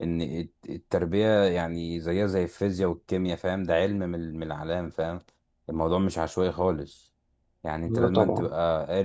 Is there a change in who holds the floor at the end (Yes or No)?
No